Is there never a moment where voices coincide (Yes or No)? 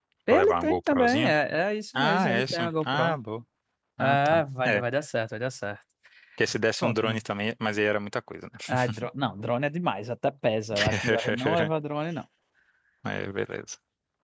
No